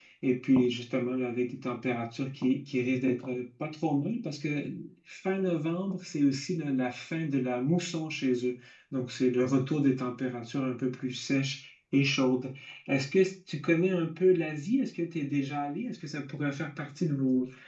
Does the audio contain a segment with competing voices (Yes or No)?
No